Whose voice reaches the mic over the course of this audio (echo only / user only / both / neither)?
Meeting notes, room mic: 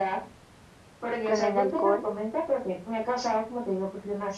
both